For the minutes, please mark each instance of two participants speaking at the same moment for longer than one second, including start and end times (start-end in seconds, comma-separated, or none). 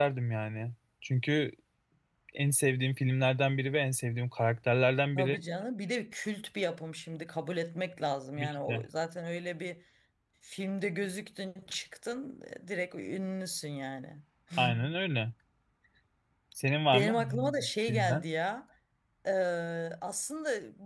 16.9-18.2